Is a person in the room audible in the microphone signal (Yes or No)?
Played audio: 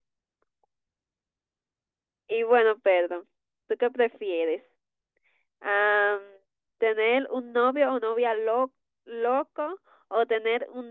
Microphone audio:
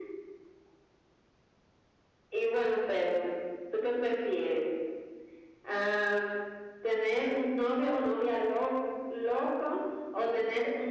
No